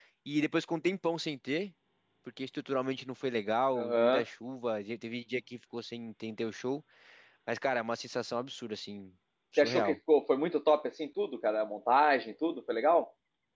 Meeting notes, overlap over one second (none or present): none